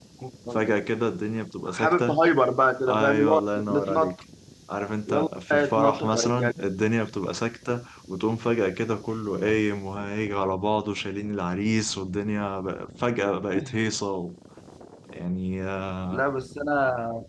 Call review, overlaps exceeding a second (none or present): present